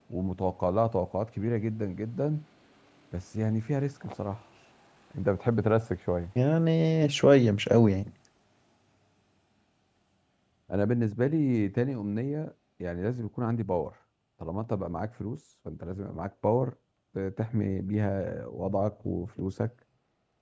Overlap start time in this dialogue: none

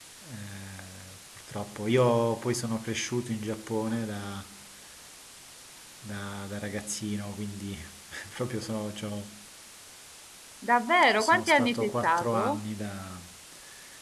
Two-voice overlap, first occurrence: 11 s

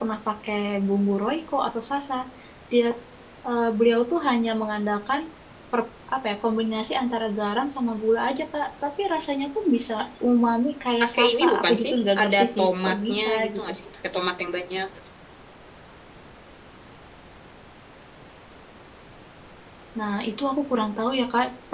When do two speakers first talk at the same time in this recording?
11 s

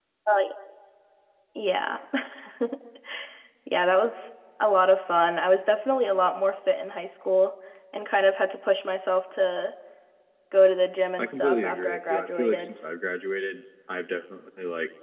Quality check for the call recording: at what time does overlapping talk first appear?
11 s

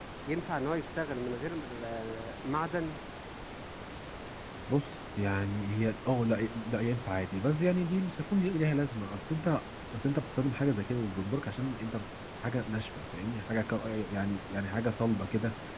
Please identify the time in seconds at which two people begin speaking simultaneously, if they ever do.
none

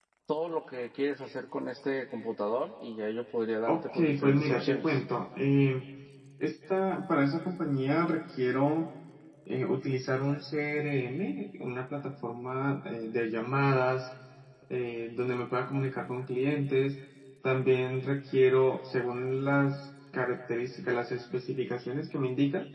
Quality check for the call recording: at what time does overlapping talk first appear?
4 s

